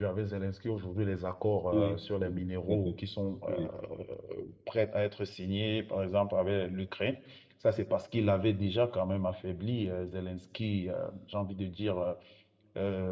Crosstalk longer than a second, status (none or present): present